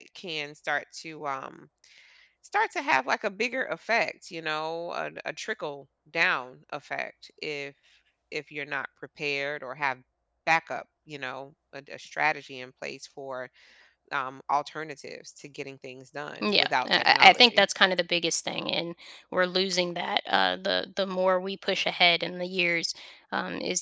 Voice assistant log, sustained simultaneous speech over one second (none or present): present